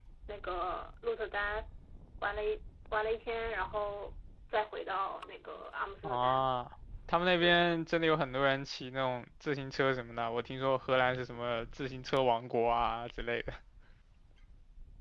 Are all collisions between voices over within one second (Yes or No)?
Yes